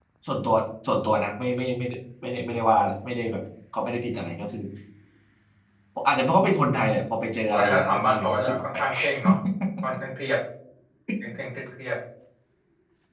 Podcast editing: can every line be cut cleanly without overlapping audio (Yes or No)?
No